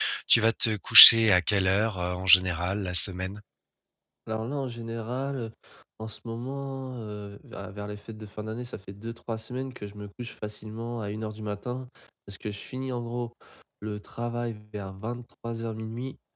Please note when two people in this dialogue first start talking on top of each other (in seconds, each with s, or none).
none